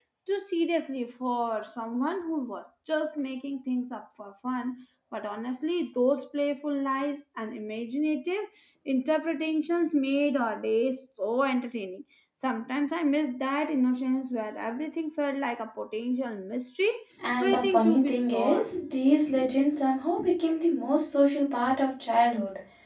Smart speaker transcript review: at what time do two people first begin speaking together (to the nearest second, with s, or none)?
17 s